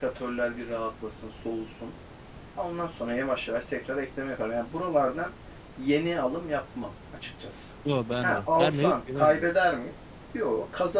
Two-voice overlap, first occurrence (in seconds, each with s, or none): 8.2 s